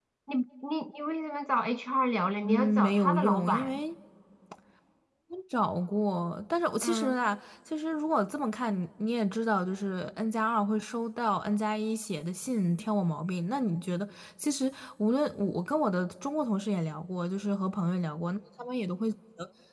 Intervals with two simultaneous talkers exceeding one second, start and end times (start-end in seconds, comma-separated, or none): 2.4-3.8